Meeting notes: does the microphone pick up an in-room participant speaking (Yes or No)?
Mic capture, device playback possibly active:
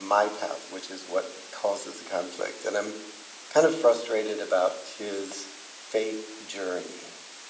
Yes